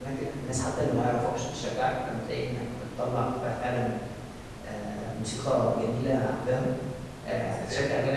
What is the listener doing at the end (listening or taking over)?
listening